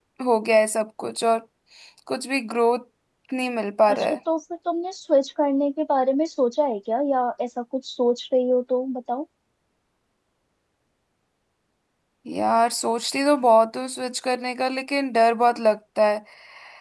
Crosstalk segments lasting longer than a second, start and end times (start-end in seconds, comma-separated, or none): none